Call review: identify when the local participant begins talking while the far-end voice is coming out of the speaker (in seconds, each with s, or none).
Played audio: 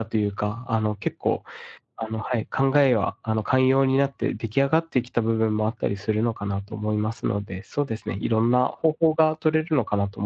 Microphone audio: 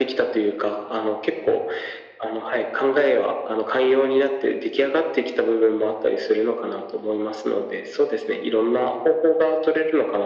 none